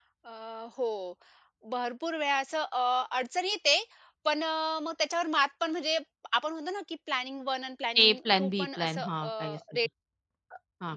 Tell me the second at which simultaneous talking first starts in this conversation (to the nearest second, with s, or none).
8 s